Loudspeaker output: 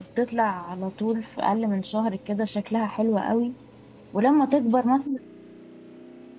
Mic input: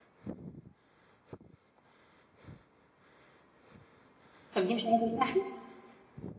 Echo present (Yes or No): No